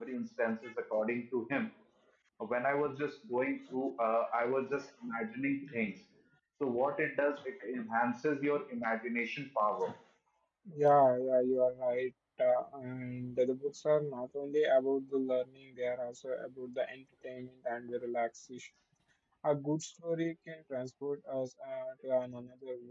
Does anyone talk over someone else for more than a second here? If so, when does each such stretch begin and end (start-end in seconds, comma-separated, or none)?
none